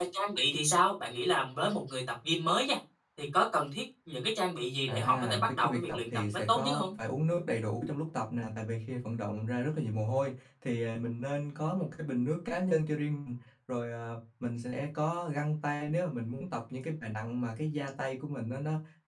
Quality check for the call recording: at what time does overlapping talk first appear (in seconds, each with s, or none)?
4.9 s